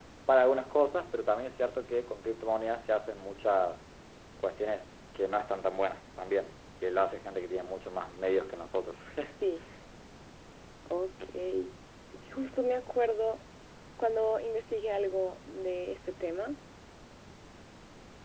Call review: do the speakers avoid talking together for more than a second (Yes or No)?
Yes